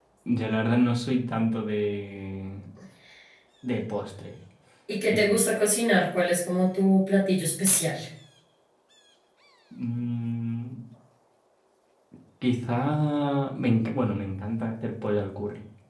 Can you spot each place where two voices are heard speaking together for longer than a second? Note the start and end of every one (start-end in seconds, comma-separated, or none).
none